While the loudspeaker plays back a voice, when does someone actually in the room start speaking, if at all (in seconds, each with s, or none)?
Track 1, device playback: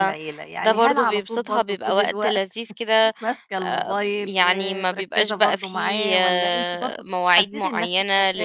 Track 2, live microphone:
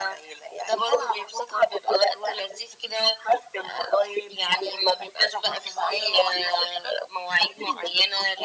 none